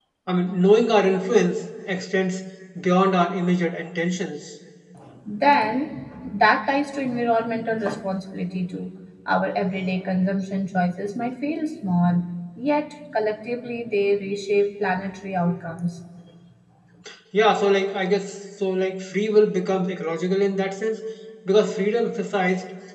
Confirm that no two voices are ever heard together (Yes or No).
Yes